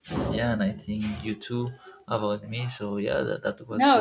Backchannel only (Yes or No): No